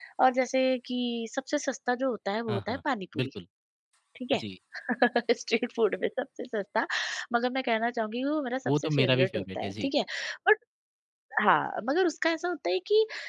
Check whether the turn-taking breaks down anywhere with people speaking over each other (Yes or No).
Yes